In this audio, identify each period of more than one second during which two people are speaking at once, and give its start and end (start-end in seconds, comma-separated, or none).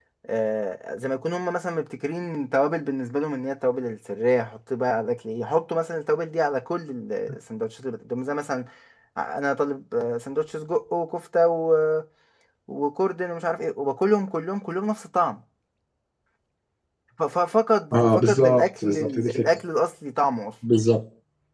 17.9-19.4